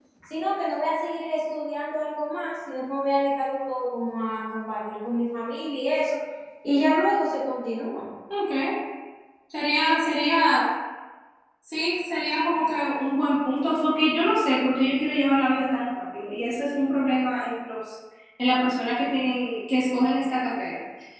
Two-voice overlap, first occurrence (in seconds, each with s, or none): none